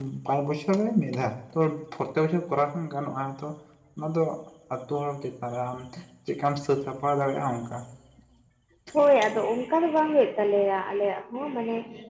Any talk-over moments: No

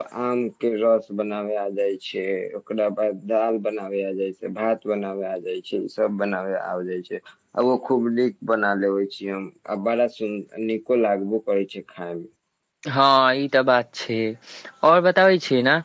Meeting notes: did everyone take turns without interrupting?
Yes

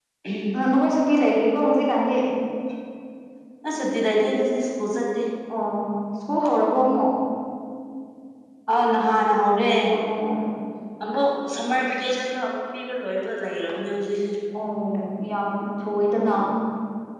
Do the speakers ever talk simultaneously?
No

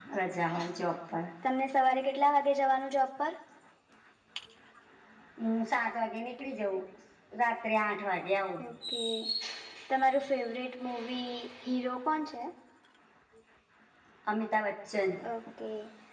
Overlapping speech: No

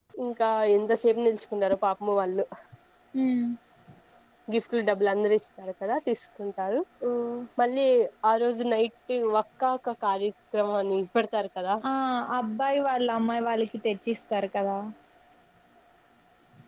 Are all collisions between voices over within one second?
Yes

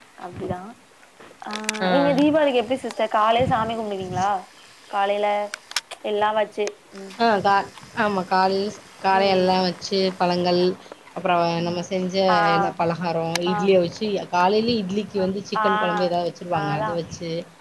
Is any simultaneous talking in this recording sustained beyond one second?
No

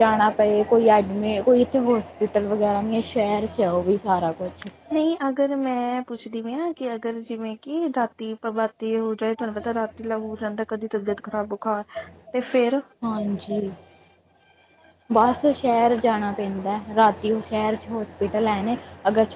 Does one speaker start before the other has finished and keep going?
No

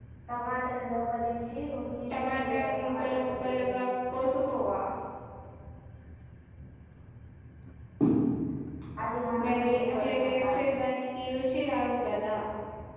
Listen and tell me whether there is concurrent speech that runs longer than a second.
Yes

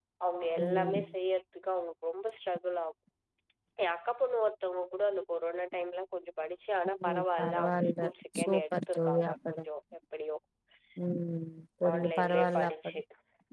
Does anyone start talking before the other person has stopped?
Yes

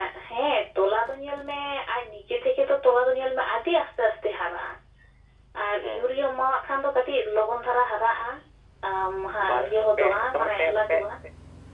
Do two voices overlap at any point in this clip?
Yes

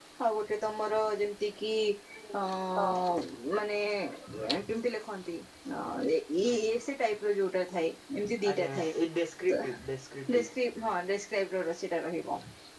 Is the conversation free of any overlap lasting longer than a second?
Yes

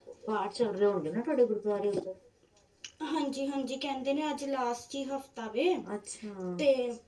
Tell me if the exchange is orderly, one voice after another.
Yes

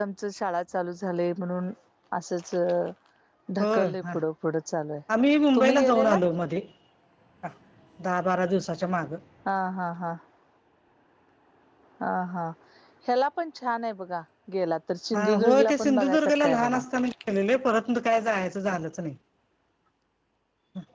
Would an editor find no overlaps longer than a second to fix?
No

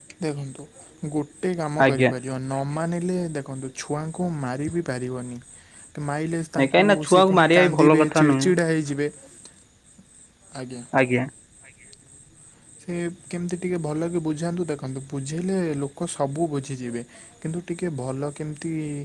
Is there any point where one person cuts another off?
Yes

